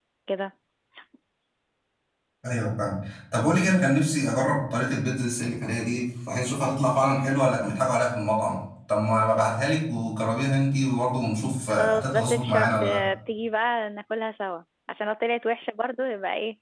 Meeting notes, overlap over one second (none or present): present